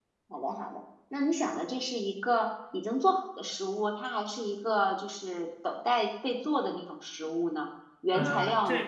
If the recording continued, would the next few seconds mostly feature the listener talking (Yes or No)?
Yes